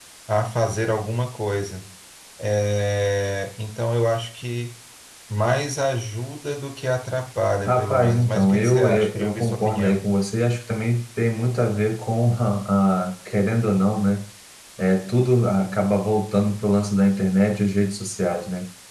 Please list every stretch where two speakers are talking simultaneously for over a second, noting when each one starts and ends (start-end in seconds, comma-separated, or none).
7.7-10.0